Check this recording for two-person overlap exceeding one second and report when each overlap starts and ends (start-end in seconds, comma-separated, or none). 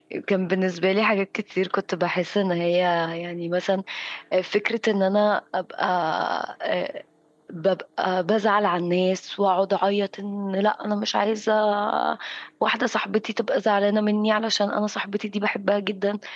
none